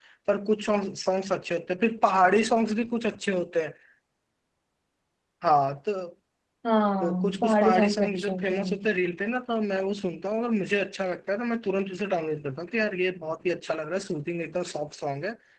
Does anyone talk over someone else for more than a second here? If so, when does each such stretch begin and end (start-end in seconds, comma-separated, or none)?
7.0-8.8